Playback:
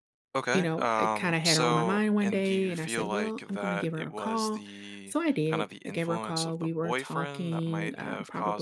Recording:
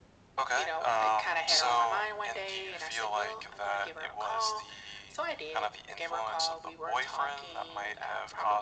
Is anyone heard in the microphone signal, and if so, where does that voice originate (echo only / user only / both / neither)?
echo only